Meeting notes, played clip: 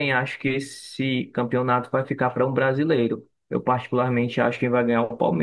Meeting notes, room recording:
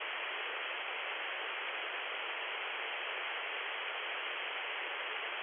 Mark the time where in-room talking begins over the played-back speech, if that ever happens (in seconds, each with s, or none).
none